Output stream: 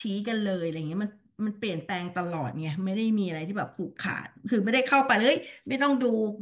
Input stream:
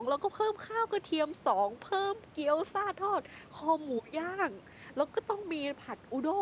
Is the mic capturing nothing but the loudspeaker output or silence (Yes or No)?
No